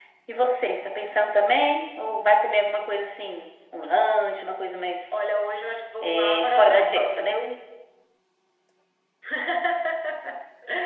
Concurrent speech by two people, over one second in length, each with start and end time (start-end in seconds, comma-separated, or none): 6.0-7.4